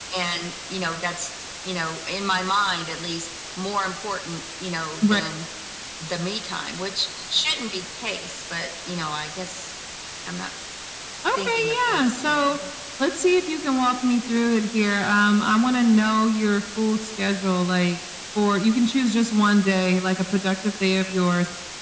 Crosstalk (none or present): present